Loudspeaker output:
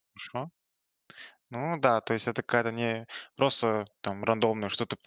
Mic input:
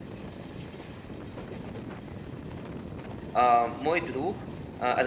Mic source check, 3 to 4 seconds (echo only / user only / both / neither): user only